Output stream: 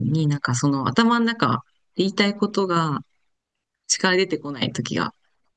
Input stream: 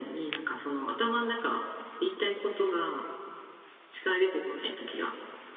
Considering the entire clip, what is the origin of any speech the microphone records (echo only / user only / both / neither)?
echo only